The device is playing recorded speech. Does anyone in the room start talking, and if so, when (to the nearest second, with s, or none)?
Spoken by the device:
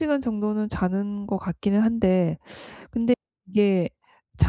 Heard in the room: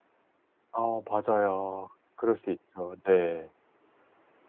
1 s